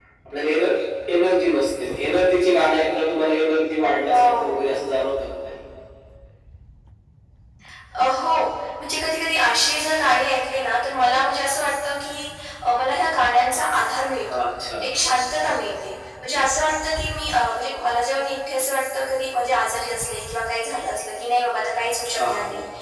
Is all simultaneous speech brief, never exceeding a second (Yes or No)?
Yes